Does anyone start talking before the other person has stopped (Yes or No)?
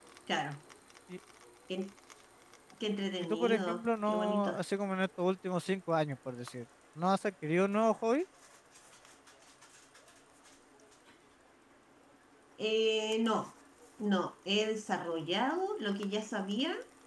Yes